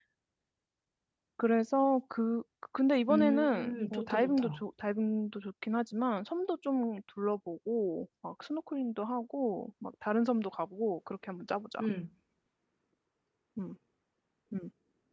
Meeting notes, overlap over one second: present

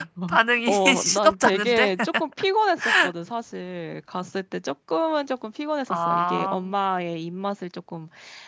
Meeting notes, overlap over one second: present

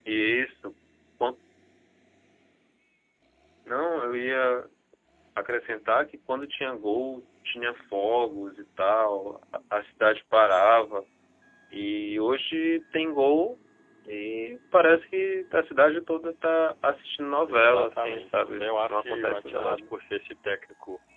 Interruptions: present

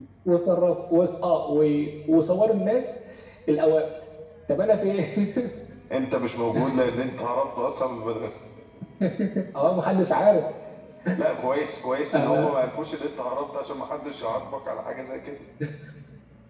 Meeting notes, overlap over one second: none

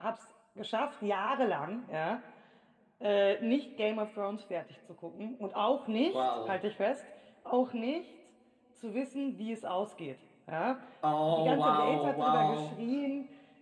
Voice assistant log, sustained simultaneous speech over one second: present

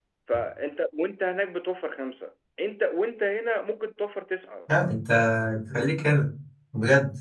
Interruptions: none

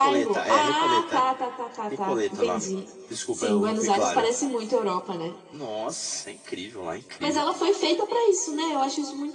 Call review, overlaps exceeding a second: present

